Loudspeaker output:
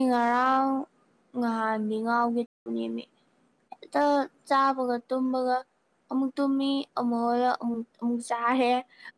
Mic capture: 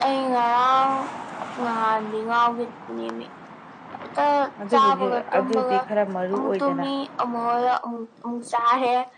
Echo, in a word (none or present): present